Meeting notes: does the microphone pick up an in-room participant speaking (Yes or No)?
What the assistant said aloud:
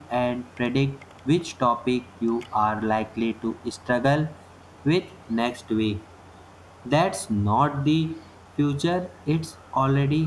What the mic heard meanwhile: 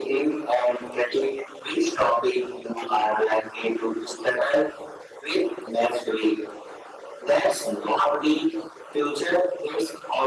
No